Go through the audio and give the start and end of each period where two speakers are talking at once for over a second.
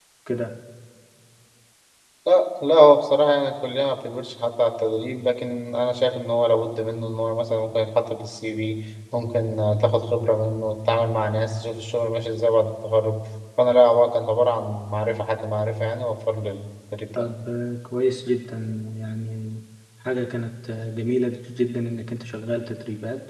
none

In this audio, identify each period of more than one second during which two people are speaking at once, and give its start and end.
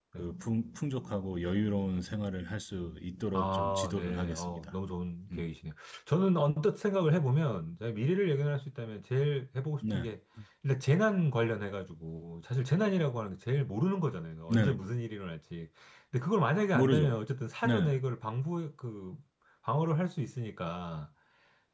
3.3-4.7

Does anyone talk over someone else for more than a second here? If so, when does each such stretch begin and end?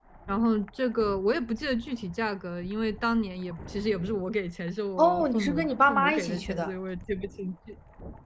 5.0-6.8

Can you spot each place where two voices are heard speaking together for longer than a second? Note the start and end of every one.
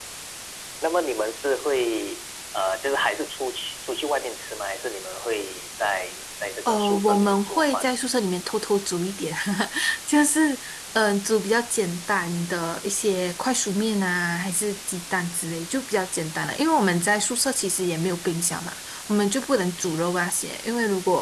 6.6-7.9

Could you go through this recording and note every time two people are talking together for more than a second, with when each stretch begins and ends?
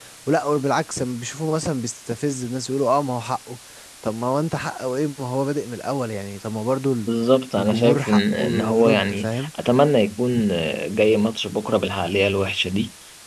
7.6-9.5

